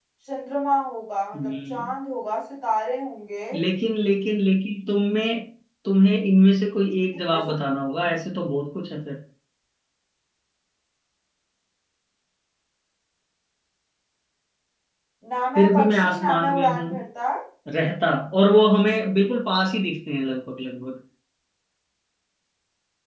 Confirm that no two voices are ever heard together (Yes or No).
No